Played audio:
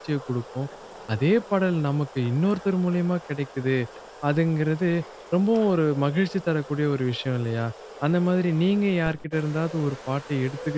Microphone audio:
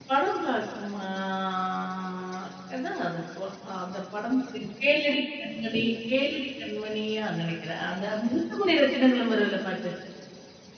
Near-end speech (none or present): present